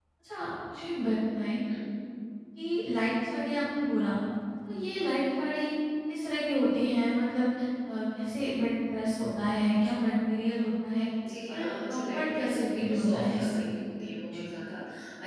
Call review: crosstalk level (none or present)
present